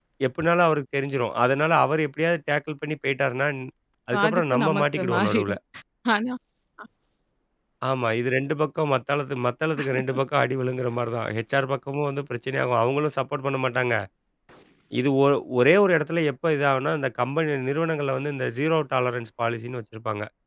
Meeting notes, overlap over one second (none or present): present